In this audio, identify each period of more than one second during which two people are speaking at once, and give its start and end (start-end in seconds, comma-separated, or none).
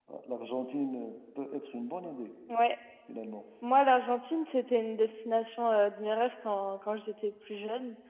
none